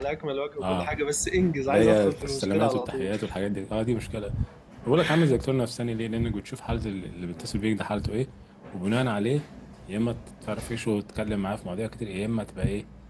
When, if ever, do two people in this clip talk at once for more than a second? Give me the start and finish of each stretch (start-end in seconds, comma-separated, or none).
1.7-3.1